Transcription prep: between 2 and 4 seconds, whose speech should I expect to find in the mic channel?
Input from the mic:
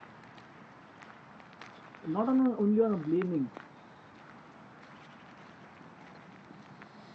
user only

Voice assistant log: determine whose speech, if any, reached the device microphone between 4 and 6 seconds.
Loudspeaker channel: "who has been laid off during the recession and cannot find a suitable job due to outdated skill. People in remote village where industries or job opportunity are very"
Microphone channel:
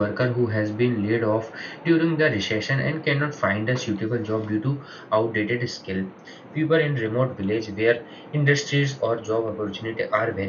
echo only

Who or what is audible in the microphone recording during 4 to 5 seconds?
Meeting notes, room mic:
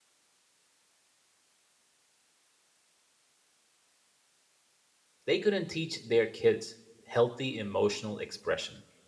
neither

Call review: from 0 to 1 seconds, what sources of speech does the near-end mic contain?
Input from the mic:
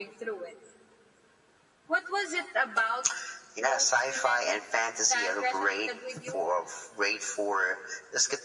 echo only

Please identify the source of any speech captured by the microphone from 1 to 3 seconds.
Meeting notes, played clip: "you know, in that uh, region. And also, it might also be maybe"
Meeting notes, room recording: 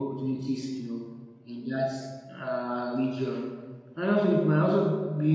echo only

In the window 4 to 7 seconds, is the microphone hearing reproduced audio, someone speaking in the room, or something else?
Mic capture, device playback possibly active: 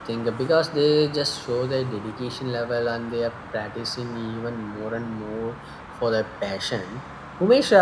user only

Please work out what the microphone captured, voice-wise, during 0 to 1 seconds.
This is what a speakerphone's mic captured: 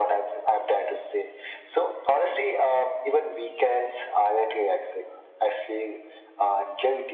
echo only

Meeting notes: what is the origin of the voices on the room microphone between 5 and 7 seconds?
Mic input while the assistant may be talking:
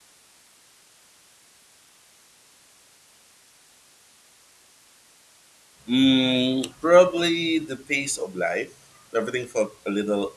user only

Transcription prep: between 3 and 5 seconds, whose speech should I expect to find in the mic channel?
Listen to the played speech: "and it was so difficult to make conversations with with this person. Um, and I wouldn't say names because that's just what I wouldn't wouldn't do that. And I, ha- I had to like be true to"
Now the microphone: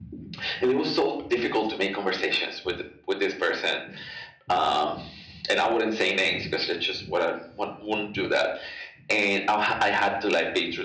echo only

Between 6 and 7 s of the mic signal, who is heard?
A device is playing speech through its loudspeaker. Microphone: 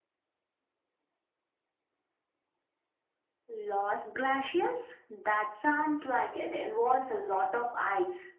echo only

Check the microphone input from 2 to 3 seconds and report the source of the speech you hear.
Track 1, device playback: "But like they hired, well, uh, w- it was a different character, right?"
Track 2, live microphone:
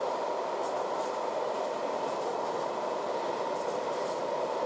neither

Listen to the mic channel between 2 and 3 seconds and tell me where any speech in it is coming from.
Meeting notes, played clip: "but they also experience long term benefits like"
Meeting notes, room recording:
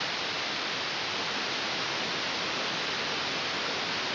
neither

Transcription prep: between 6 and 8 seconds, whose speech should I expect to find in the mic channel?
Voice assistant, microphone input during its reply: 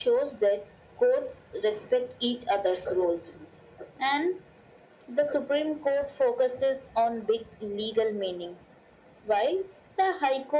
echo only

